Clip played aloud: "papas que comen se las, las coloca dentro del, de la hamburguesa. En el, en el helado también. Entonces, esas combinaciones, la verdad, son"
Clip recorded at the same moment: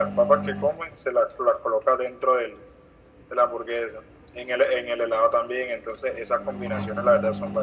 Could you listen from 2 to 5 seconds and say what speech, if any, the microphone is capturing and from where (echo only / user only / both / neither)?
echo only